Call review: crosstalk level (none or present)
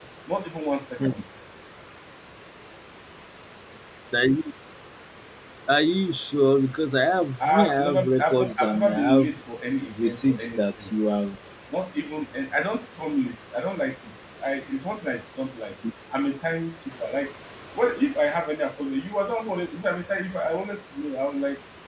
present